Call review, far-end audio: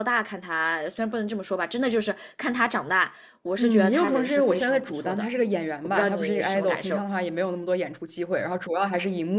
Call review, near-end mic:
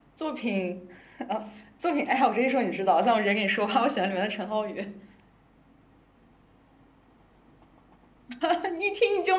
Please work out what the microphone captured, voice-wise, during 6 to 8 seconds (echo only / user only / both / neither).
neither